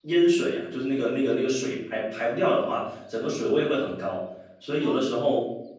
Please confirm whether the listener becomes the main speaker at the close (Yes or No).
No